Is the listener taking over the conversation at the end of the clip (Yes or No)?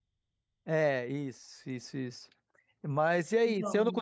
No